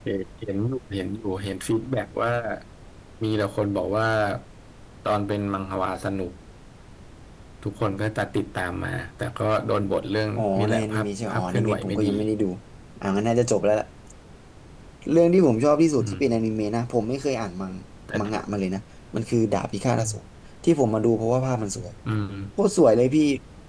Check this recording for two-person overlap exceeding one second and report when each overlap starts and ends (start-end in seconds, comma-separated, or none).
10.4-12.1